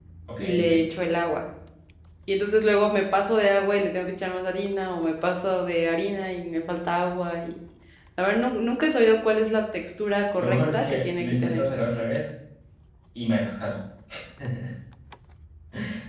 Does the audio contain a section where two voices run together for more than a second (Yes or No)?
Yes